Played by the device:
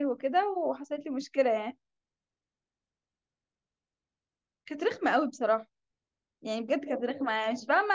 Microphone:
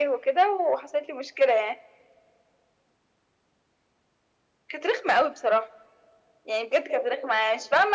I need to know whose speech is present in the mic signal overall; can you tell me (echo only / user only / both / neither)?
echo only